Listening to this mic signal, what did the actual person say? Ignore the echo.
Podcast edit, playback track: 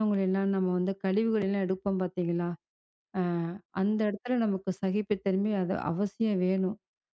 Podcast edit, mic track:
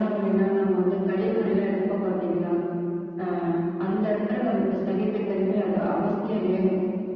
none

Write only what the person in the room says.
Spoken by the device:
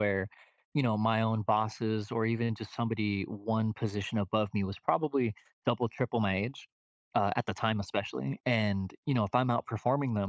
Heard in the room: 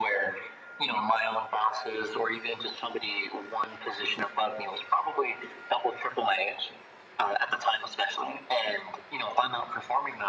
none

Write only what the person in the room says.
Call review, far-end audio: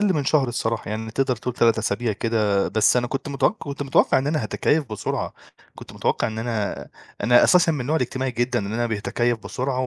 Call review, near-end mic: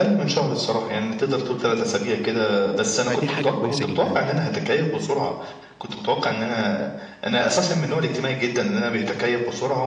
فدي حاجة كويسة جدًا.

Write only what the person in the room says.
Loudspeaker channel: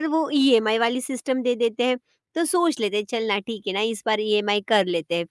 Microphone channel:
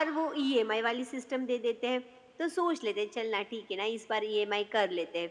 none

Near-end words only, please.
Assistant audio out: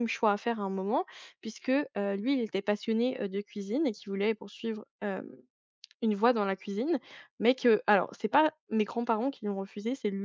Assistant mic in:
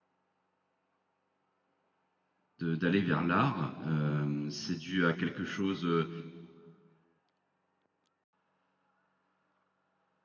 de d'aller vers l'art, hem, c'est dû à quelque chose, heu,

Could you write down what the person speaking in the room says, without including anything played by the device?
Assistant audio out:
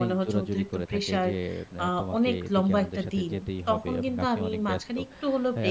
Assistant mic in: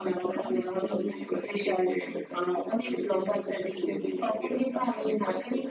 none

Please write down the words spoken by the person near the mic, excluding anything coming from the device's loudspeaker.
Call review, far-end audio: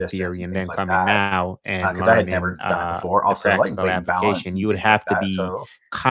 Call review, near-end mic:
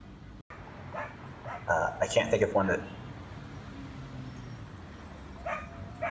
uh, I can't think of one that

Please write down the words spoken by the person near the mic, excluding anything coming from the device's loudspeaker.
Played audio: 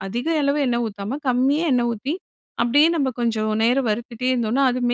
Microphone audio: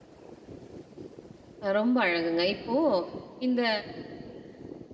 அ ரொம்ப அழகுங்க. இப்போ இந்த

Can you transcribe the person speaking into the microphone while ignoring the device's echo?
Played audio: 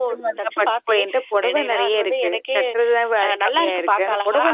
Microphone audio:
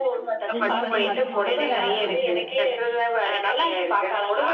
உண்மதான். அது பார்க்கையில அழகா இருக்கு.

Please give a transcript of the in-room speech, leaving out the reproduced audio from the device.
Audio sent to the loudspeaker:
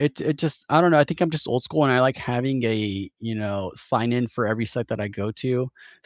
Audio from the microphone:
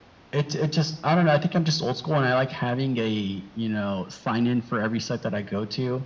none

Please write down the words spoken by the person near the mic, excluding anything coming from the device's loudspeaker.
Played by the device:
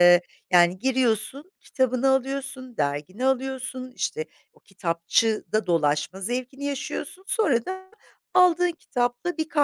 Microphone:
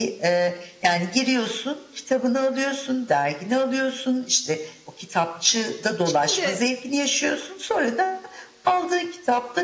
Şimdi

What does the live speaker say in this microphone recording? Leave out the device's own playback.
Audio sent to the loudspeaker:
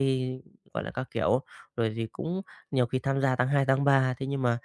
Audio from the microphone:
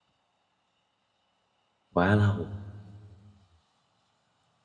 quá lâu,

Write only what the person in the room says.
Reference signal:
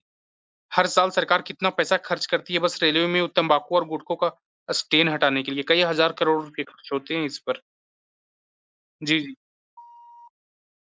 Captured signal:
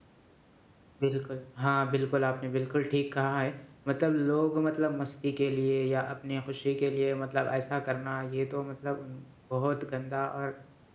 बिल्कुल। हाँ, बिल्कुल, आपने बिल्कुल ठीक कहा है। मतलब लोग मतलब मस्ती के लिए या अपनी खुशी के लिए मतलब ऐसा करना, ये तो मतलब उन बहुत गंदा और

